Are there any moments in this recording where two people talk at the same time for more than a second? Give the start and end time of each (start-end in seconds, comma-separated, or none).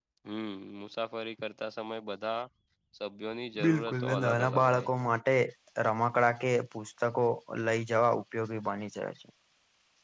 3.6-4.9